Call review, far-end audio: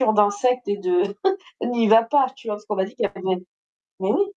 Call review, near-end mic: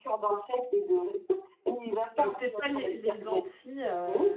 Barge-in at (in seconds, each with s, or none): 2.1 s